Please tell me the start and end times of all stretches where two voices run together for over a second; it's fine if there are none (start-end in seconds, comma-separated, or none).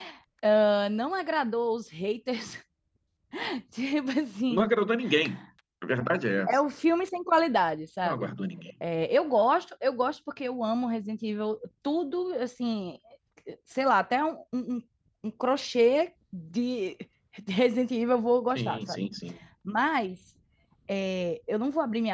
none